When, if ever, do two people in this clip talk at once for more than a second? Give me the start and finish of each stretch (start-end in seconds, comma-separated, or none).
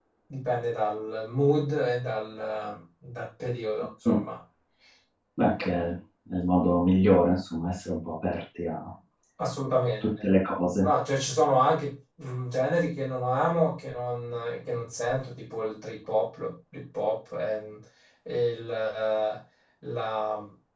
none